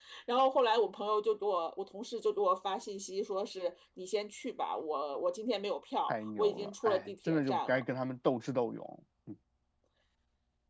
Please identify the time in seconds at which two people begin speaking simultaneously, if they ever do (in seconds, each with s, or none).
6.1 s